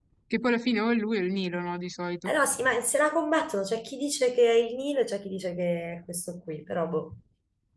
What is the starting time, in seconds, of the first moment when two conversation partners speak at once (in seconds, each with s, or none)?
none